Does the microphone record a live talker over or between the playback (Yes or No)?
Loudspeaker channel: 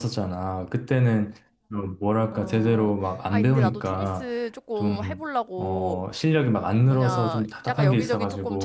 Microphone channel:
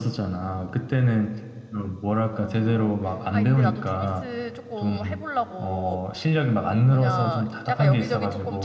No